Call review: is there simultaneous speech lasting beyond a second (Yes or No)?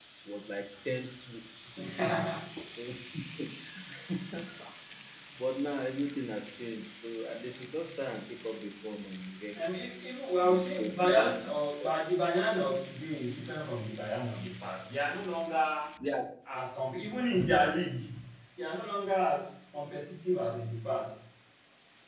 Yes